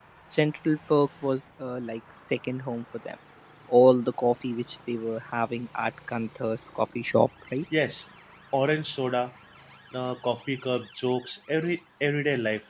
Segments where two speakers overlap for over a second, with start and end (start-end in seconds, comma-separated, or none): none